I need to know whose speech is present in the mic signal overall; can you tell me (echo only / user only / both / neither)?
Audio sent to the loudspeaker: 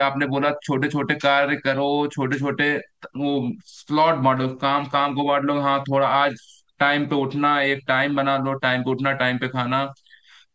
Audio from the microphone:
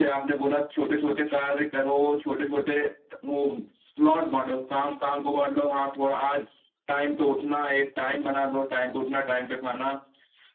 echo only